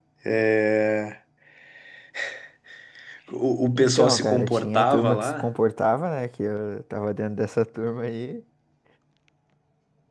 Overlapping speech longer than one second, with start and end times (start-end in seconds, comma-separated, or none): 3.8-5.5